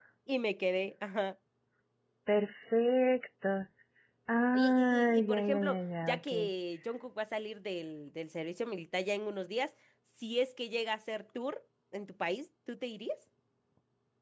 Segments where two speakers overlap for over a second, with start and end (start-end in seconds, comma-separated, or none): 4.5-6.3